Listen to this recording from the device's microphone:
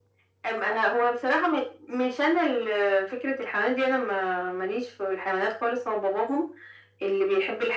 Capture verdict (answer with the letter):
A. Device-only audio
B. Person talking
A